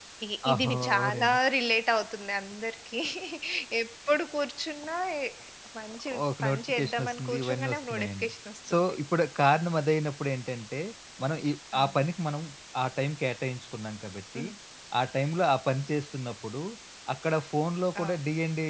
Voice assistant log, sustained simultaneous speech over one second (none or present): present